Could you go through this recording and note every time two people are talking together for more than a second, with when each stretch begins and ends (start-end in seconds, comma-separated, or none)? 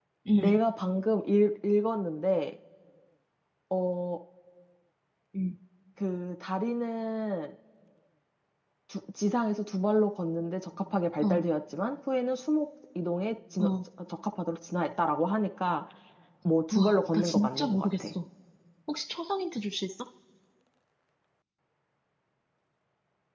16.7-18.1